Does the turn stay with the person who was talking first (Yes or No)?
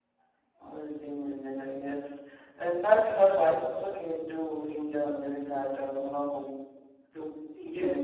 No